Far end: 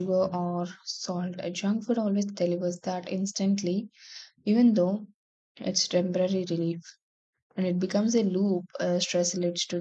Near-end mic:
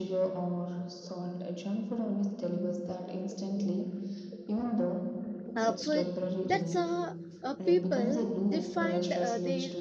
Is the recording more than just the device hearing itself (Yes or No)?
Yes